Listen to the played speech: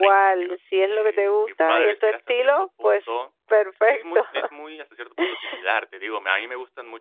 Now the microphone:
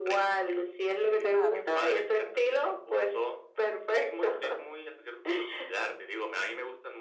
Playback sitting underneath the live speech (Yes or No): No